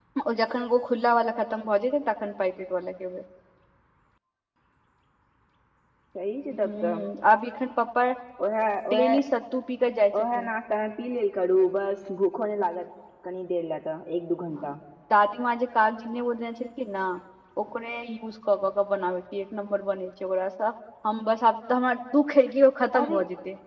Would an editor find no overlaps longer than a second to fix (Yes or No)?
Yes